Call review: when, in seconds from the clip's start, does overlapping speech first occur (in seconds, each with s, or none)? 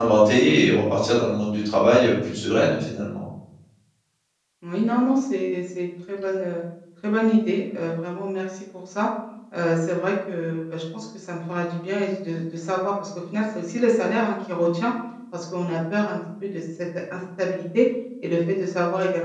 none